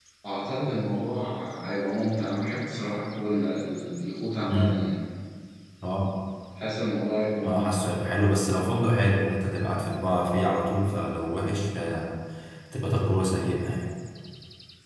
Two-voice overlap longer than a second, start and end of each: none

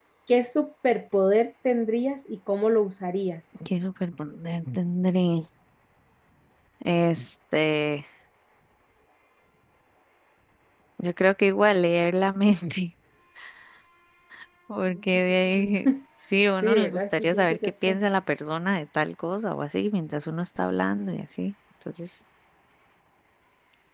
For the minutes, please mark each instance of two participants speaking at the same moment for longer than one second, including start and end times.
16.6-18.0

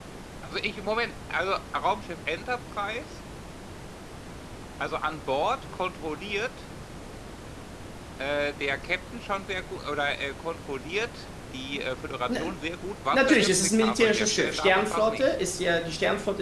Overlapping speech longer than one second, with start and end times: 13.1-15.3

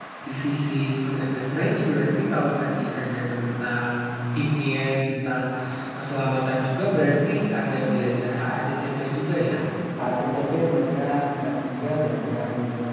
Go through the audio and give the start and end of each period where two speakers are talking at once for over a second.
none

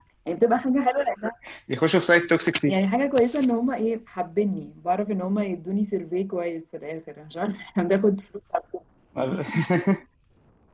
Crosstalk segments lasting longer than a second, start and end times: none

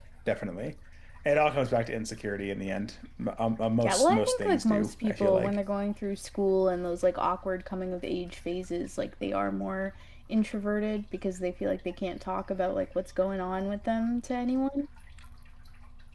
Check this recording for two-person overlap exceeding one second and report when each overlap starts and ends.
3.8-5.6

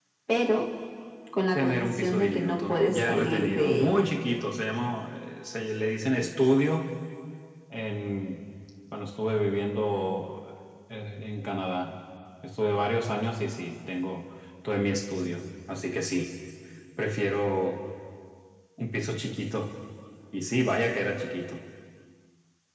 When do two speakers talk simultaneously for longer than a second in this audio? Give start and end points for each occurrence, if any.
1.6-4.1

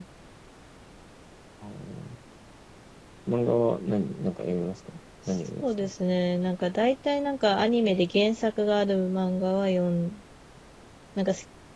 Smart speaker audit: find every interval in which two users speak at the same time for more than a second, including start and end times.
none

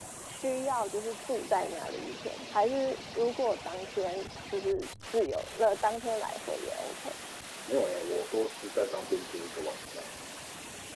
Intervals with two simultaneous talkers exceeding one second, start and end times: none

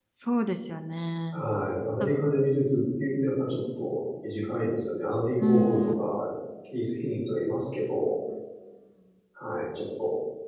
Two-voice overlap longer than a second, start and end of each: none

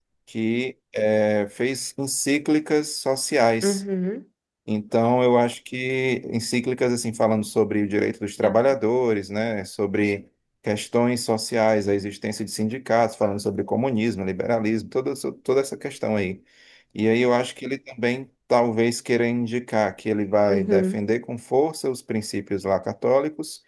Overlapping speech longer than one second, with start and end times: none

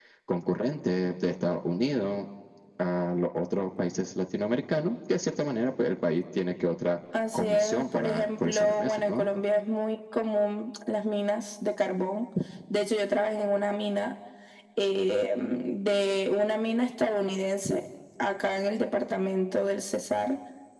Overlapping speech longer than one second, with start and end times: 7.3-9.3

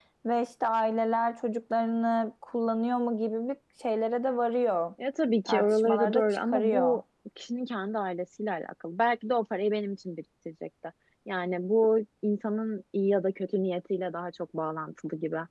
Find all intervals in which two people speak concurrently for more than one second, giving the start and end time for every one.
5.5-7.0

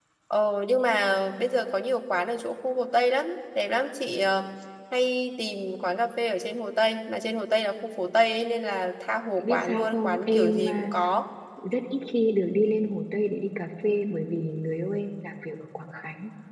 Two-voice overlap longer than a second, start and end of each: 9.4-10.9

